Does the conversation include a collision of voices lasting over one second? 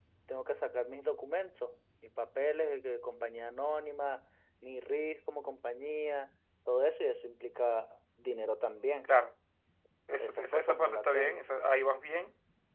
Yes, from 10.2 s

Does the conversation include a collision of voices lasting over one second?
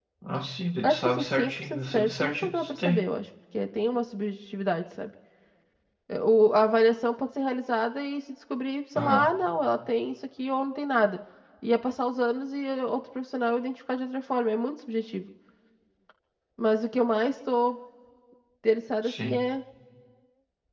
Yes, from 0.8 s

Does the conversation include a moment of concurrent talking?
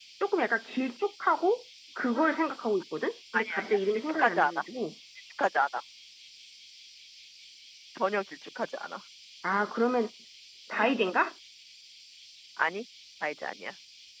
Yes, from 3.3 s

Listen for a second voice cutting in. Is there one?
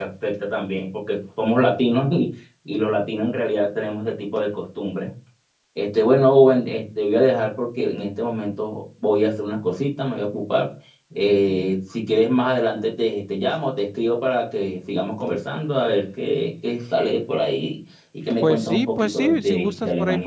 Yes, from 18.4 s

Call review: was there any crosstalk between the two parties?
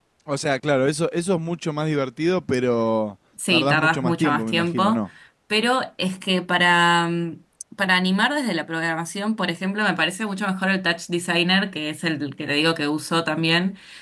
Yes, from 3.4 s

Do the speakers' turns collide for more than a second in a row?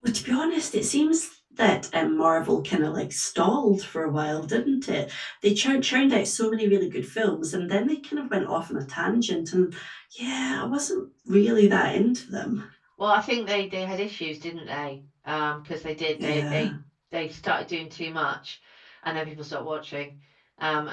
No

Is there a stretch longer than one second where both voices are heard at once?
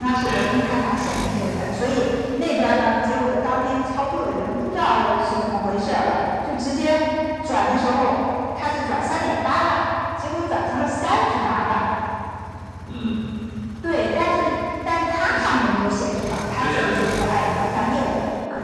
No

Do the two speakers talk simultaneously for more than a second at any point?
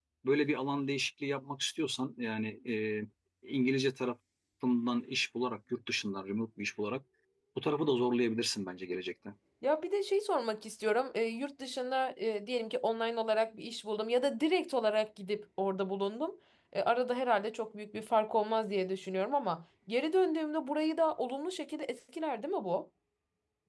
No

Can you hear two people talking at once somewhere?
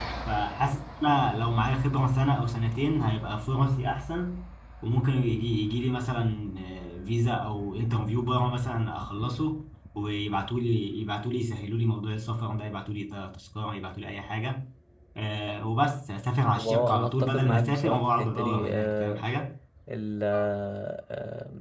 Yes, from 16.6 s

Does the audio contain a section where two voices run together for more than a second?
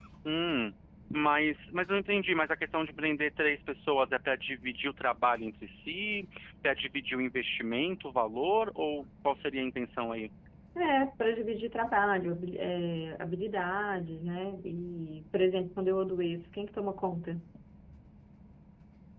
No

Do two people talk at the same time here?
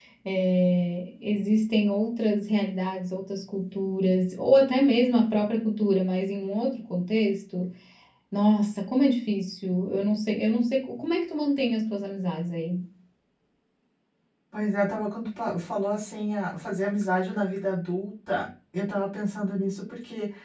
No

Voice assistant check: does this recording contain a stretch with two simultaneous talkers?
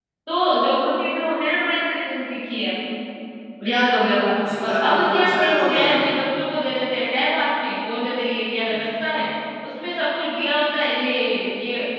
Yes, from 4.4 s

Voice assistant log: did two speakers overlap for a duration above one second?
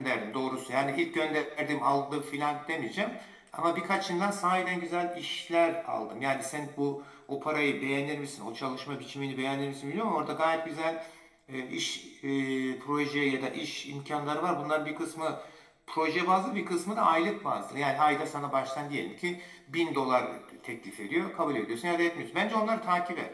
No

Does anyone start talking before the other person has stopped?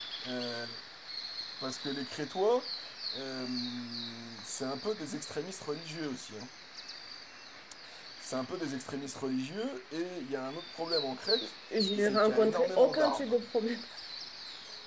Yes, from 12.0 s

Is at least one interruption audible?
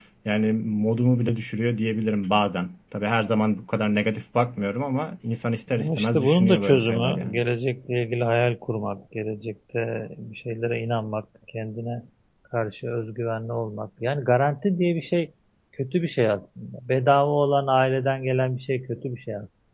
Yes, from 5.7 s

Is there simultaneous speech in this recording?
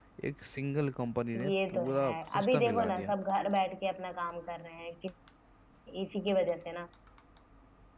Yes, from 1.3 s

